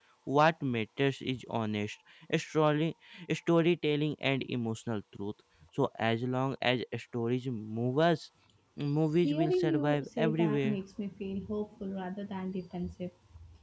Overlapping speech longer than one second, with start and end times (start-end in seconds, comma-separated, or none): 9.2-10.8